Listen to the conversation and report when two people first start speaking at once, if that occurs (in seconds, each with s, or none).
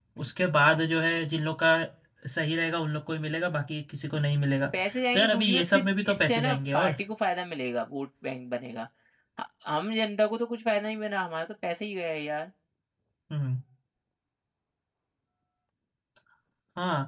5.1 s